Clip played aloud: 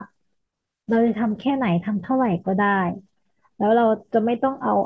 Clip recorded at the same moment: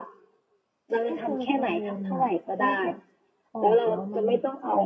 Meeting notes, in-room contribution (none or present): present